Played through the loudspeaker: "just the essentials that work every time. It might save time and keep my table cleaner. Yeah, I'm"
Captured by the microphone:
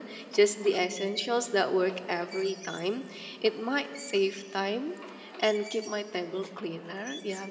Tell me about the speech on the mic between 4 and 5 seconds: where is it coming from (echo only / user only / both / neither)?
echo only